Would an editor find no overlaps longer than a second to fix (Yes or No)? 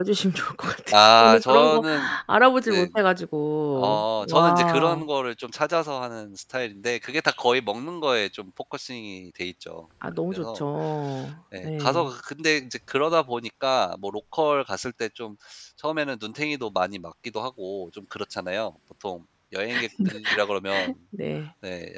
No